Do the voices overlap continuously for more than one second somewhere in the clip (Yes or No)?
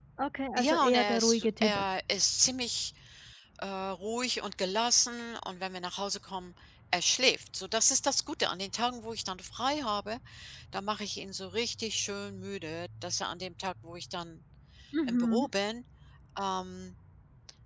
Yes